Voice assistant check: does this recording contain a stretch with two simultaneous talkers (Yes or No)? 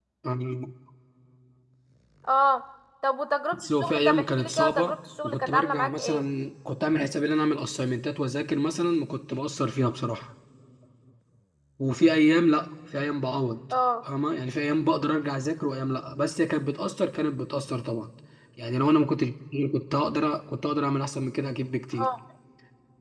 Yes